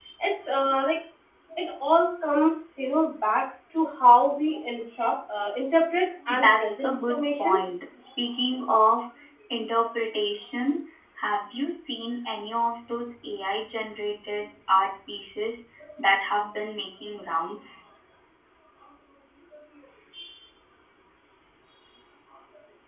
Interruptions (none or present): present